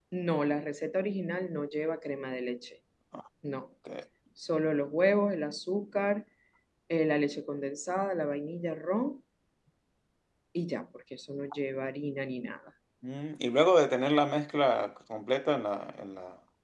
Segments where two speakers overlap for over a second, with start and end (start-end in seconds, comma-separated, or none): none